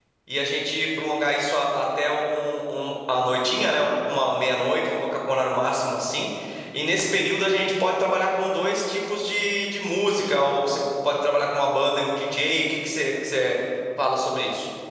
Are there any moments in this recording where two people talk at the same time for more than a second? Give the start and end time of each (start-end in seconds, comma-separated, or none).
none